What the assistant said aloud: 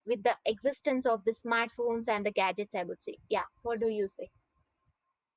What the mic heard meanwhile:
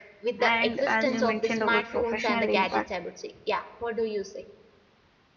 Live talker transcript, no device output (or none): and as you mentioned about professional impact